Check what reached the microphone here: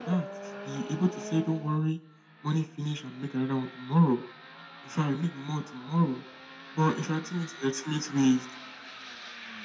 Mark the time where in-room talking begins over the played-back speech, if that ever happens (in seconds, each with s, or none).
none